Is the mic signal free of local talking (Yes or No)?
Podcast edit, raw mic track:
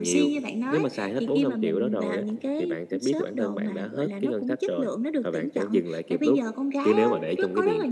Yes